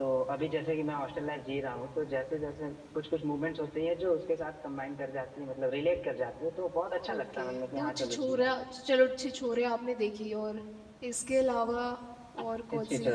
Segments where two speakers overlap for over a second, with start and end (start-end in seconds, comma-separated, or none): 7.1-8.5